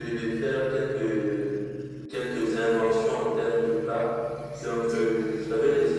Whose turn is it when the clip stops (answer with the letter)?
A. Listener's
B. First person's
B